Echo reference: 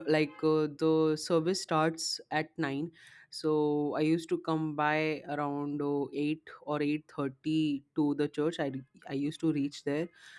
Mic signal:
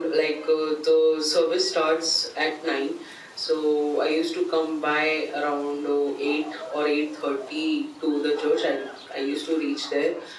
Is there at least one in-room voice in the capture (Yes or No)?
No